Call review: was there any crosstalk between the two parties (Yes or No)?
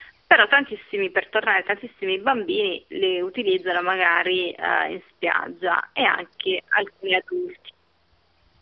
No